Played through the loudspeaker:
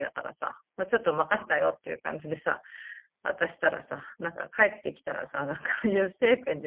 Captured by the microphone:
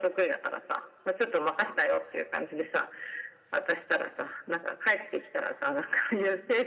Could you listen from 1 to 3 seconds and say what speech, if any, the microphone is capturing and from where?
echo only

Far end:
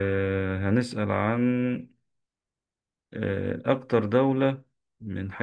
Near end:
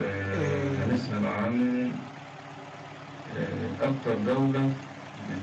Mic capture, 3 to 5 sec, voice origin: echo only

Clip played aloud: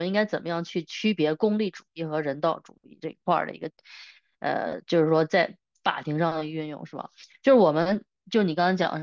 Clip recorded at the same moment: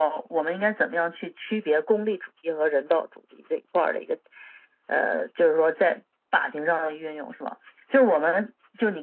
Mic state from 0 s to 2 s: echo only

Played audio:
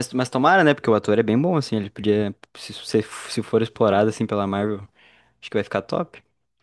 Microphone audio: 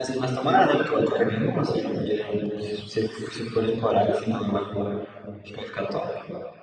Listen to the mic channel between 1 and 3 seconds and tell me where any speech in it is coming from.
echo only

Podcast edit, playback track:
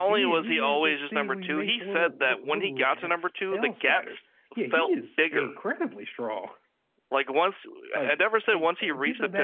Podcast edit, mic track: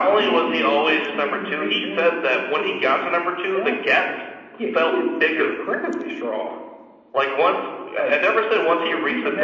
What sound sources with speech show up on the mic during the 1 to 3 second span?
echo only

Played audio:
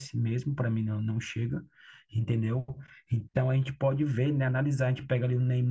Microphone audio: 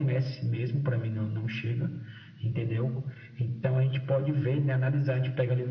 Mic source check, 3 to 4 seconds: echo only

